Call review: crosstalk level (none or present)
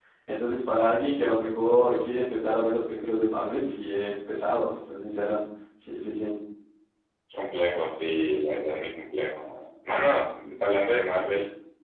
none